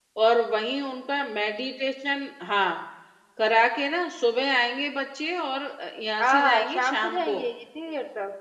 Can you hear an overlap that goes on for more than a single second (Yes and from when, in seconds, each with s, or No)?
Yes, from 6.2 s